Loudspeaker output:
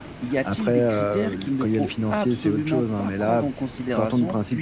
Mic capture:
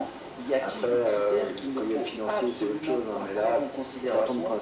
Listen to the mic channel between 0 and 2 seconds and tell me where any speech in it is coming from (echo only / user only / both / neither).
echo only